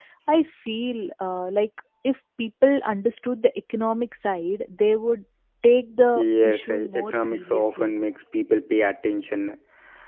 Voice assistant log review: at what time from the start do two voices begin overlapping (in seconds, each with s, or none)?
6.2 s